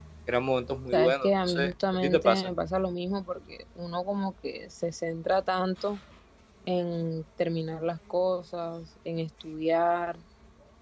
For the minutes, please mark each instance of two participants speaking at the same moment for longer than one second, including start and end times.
0.9-2.5

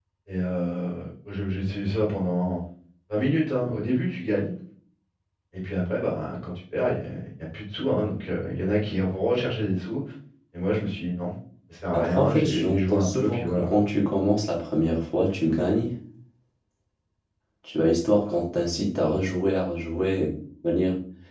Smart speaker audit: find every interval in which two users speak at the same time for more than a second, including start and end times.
11.9-13.7

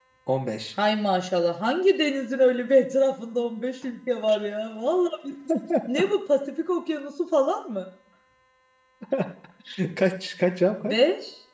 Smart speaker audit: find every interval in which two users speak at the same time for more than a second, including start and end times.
none

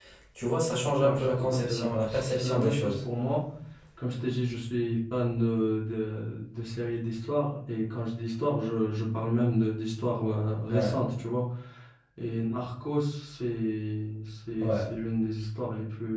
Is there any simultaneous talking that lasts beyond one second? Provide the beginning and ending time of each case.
1.0-2.9

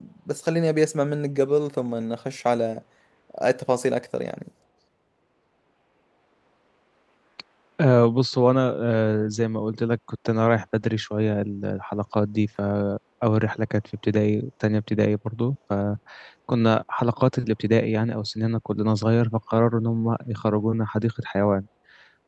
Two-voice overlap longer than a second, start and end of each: none

